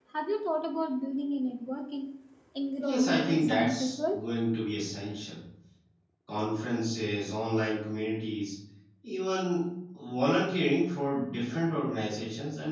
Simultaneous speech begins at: 2.8 s

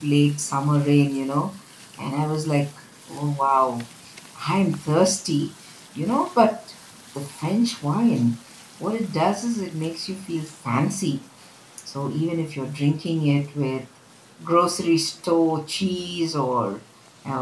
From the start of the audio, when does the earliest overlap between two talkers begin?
none

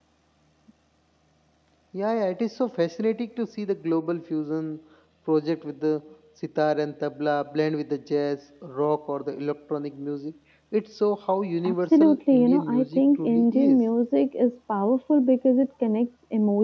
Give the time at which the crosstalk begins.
11.6 s

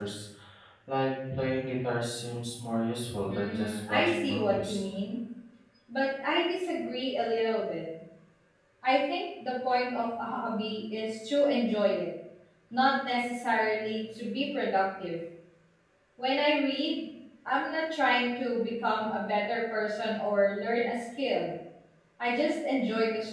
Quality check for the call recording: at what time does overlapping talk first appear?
3.3 s

